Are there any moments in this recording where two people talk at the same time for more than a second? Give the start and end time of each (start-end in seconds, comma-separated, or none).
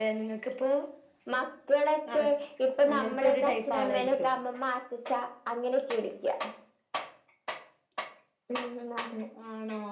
2.9-4.3